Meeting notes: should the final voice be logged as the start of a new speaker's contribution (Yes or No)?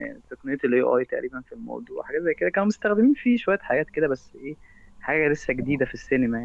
No